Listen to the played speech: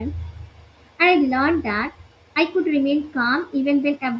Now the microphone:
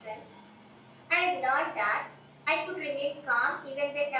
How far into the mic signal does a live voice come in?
none

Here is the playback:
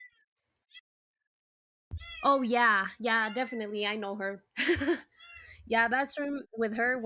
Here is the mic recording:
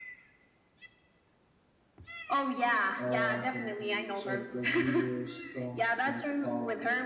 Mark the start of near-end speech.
3.0 s

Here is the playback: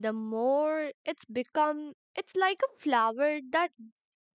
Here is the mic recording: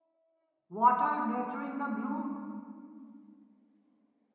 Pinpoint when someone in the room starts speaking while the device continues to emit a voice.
0.7 s

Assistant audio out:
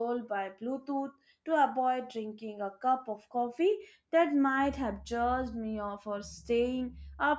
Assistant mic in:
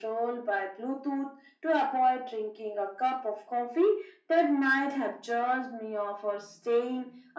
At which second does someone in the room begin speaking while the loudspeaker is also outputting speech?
none

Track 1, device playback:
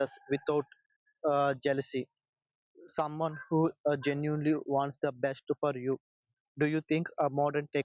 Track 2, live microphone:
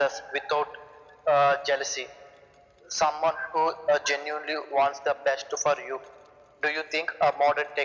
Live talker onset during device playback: none

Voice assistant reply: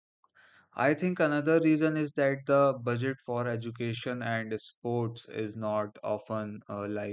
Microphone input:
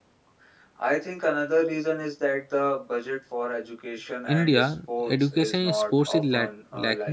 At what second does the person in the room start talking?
4.3 s

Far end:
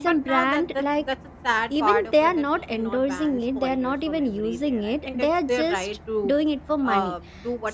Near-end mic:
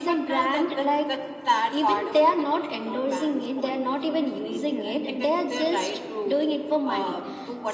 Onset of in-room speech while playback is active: none

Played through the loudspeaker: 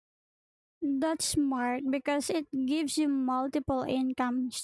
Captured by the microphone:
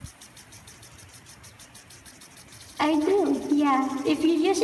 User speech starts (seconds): 2.8 s

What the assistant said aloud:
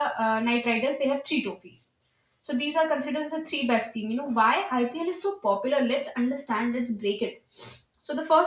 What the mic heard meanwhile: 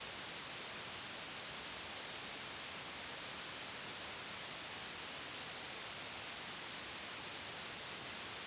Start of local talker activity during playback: none

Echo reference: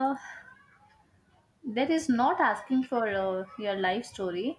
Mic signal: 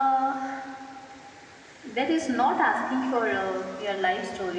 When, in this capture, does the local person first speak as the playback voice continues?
none

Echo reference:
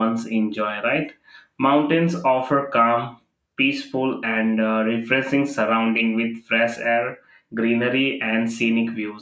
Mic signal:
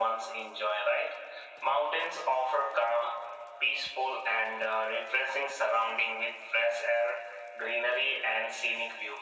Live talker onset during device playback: none

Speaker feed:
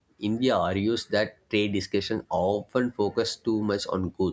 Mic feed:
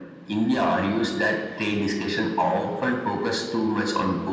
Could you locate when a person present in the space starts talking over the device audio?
none

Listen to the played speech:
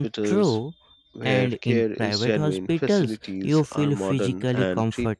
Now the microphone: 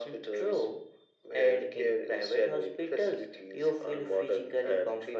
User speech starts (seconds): none

